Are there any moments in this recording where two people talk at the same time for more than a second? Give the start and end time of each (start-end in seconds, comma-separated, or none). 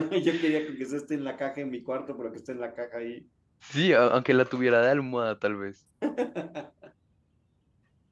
none